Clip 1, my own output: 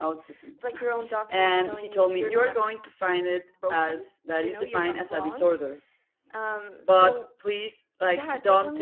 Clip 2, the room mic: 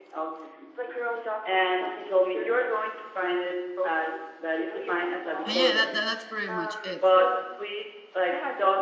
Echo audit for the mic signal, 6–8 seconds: both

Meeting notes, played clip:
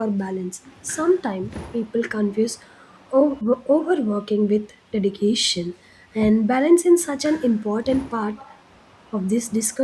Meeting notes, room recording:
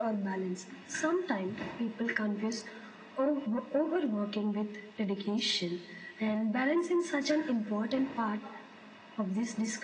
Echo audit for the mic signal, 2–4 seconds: echo only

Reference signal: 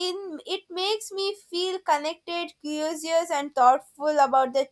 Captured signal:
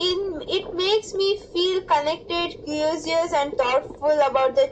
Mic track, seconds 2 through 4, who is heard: echo only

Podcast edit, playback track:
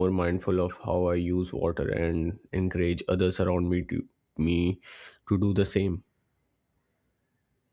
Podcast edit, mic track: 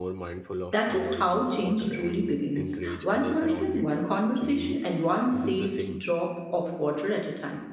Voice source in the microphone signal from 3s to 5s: both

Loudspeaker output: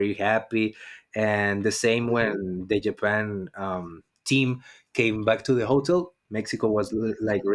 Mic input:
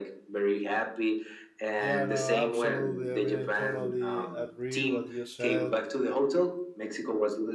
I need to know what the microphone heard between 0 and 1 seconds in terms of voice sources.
echo only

